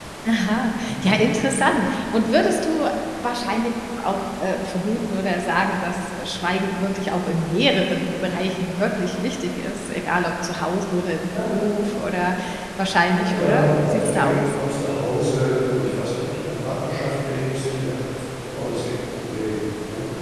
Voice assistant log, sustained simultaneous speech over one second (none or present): present